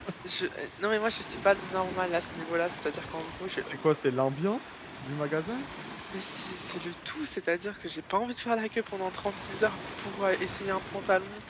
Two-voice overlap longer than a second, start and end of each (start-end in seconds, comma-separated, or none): none